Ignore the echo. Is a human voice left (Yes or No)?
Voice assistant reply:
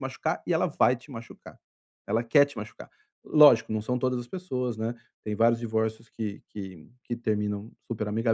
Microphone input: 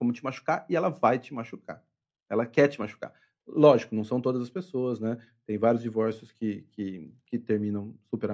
No